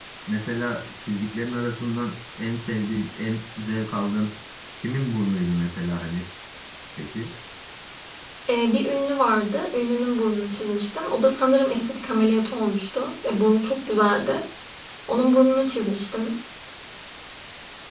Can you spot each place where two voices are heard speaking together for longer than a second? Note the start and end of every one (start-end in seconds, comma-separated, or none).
none